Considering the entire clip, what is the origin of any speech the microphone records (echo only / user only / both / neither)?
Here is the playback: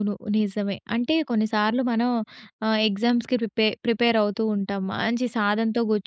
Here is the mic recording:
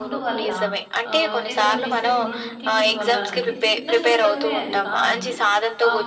both